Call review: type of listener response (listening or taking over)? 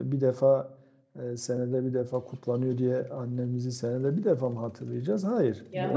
listening